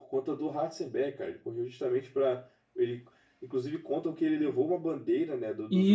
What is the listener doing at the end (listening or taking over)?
taking over